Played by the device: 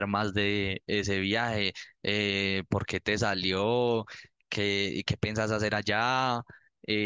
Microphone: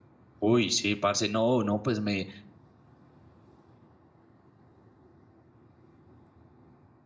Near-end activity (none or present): present